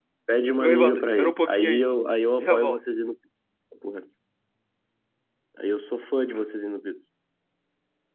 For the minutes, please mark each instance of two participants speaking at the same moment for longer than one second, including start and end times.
0.6-1.9

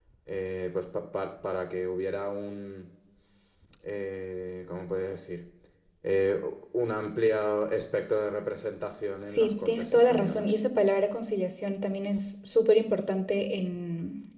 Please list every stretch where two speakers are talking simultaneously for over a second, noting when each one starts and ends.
9.3-10.5

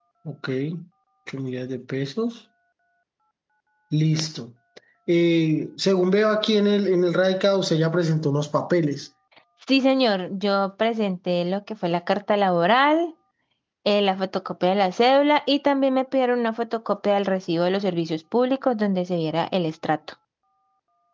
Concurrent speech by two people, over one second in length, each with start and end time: none

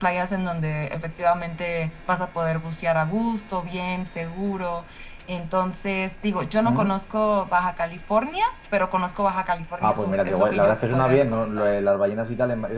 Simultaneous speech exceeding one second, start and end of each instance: 9.8-11.6

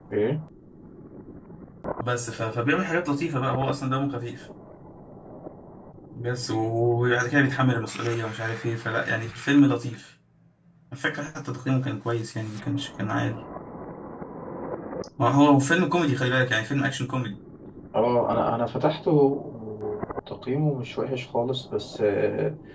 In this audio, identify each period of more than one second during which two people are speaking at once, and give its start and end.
none

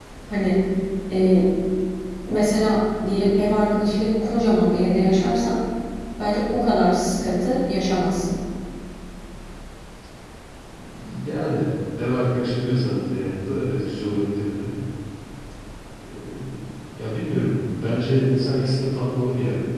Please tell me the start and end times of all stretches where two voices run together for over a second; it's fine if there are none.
none

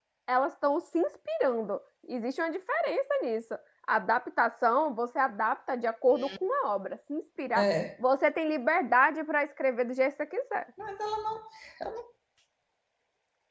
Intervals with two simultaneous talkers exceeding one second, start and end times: none

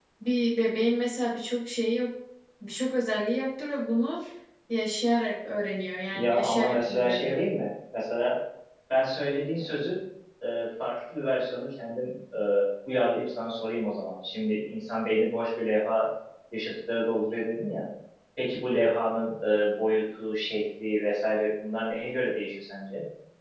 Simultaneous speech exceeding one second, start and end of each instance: 6.1-7.3

